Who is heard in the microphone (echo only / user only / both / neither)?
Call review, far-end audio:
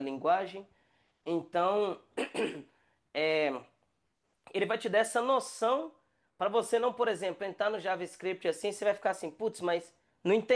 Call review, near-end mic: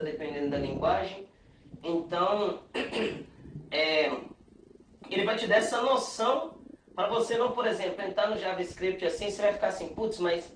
echo only